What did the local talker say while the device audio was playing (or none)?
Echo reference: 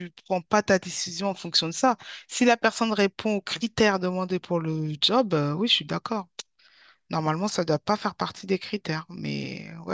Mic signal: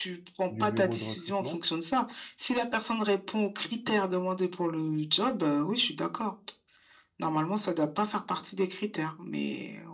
du bureau de recrutement.